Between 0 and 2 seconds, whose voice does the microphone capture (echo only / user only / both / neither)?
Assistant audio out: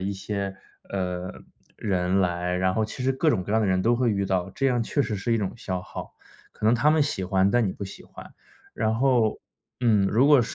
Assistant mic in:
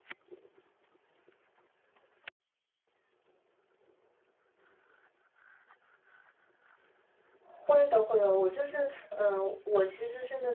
neither